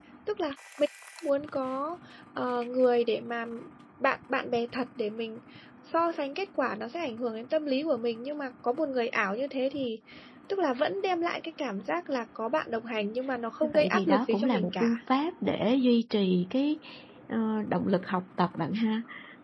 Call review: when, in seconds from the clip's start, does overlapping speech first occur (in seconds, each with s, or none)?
13.6 s